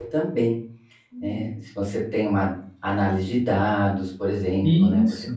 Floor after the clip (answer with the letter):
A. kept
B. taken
A